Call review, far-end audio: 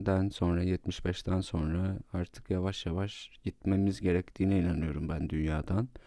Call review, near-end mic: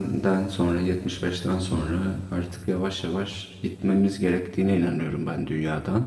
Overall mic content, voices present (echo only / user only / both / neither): echo only